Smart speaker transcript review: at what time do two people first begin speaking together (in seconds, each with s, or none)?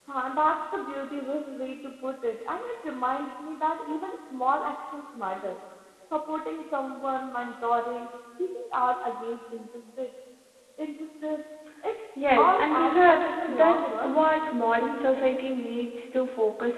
12.2 s